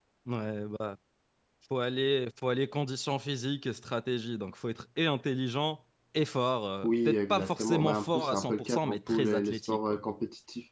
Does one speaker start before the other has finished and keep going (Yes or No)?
Yes